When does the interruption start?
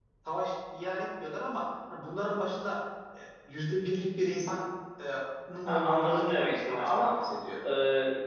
5.7 s

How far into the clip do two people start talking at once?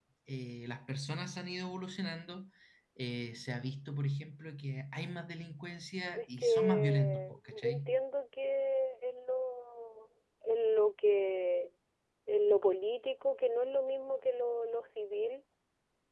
6.1 s

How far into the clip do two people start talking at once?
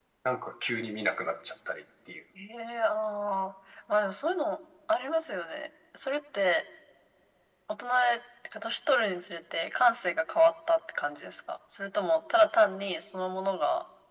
none

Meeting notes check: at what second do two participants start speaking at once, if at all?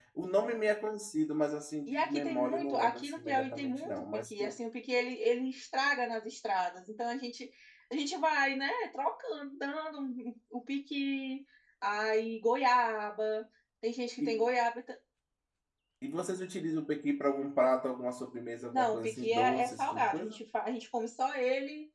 1.9 s

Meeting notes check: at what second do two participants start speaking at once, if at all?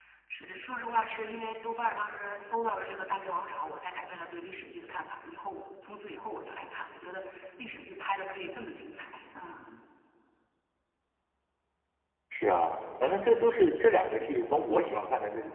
none

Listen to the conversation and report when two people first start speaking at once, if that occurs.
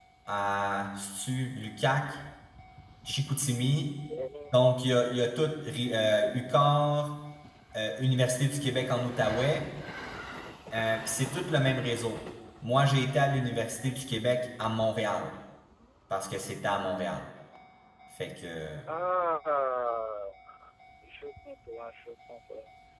none

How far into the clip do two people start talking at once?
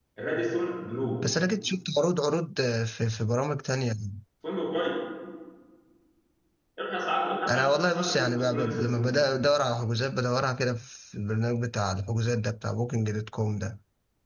7.5 s

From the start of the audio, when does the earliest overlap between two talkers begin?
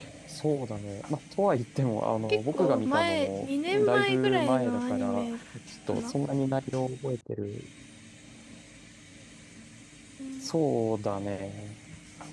2.3 s

